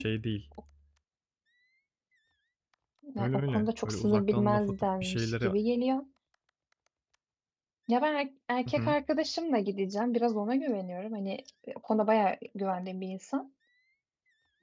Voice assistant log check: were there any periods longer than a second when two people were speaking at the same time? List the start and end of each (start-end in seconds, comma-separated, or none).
3.2-5.5